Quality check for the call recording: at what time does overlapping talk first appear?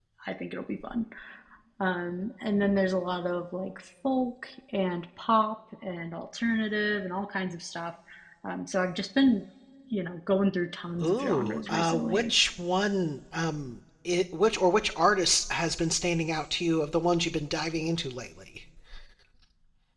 11 s

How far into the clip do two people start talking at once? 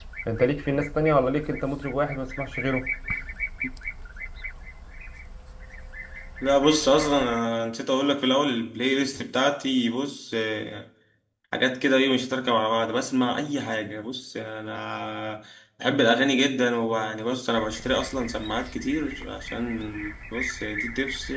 none

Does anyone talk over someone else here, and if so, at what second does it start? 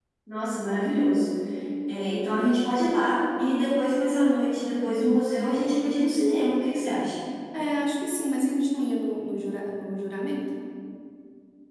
none

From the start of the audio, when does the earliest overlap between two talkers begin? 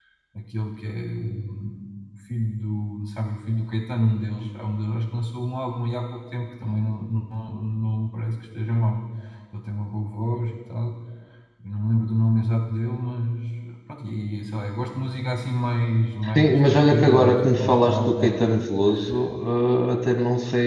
16 s

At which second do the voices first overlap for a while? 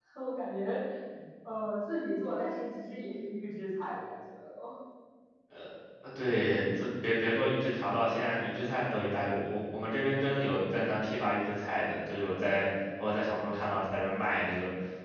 none

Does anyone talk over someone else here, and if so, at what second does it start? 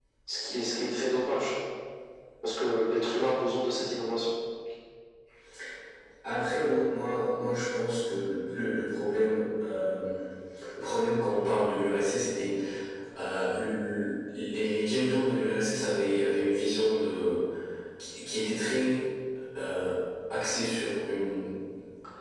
none

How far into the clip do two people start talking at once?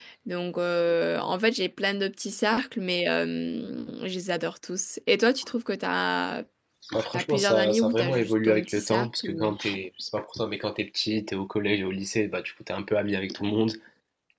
7 s

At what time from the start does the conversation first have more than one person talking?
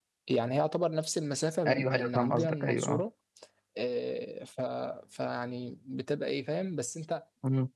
2 s

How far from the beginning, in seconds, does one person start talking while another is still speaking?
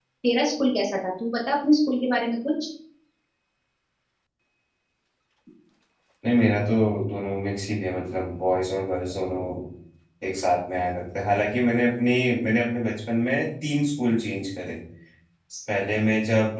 none

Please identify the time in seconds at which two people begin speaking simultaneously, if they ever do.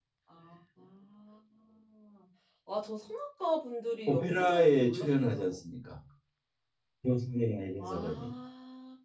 4 s

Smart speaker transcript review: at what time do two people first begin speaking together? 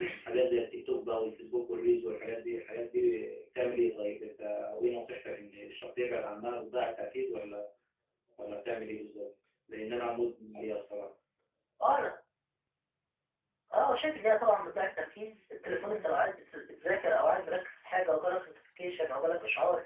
none

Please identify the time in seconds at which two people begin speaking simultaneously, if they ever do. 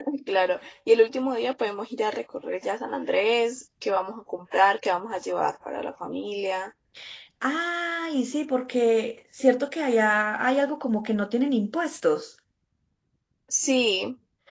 none

